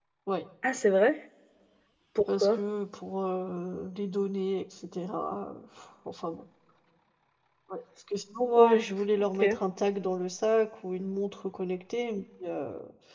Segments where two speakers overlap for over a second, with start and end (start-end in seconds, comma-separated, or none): none